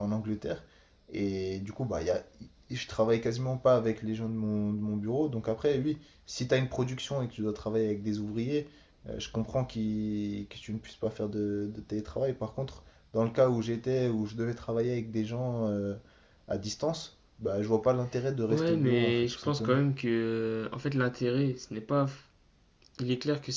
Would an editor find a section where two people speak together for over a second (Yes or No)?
Yes